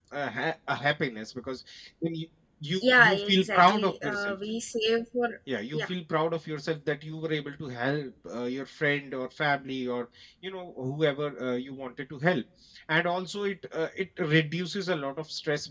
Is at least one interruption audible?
Yes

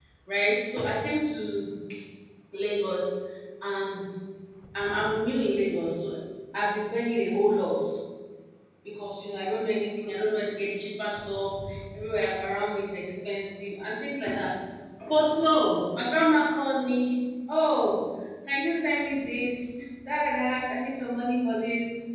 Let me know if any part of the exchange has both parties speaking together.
No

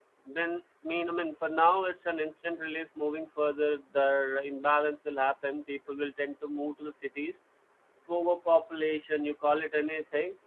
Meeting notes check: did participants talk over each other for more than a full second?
No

